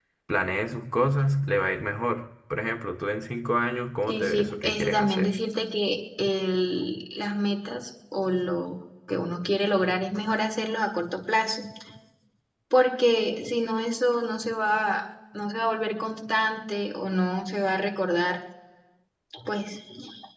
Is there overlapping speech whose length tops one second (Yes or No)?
Yes